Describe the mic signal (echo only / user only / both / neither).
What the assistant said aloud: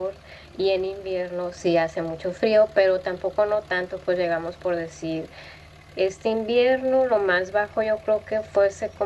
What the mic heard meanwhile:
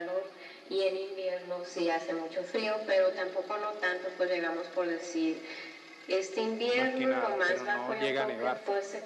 both